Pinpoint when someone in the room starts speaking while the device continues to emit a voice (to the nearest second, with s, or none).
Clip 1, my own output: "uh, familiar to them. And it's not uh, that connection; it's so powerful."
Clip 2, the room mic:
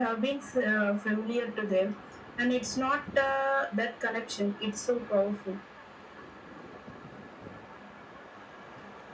none